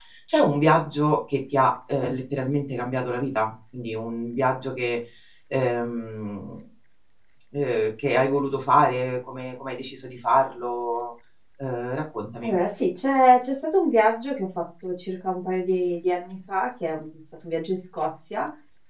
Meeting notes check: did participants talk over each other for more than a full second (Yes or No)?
No